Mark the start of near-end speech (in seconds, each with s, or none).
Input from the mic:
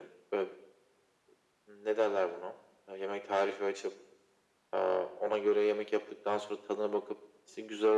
none